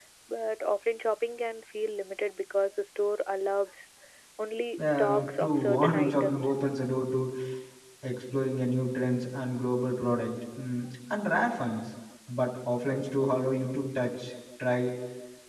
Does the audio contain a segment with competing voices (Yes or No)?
Yes